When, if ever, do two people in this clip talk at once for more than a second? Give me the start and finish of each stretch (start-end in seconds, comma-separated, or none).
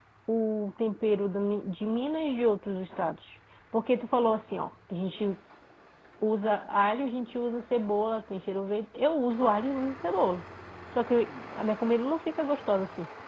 none